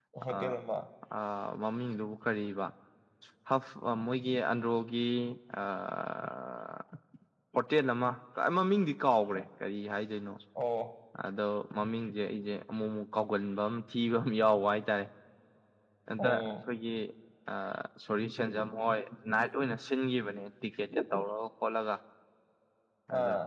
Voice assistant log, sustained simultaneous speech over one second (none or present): none